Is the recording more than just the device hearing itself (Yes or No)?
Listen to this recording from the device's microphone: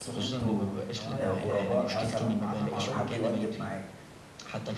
Yes